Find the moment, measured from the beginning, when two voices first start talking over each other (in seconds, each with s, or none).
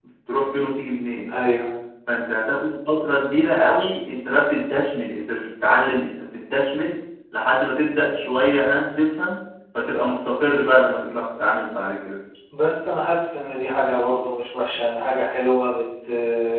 none